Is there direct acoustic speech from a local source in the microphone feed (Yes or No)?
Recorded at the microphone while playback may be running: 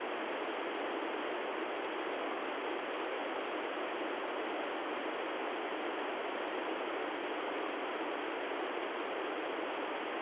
No